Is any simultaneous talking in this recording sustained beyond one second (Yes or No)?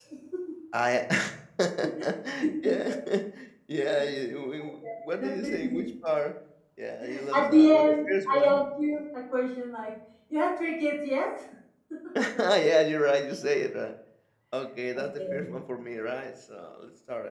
Yes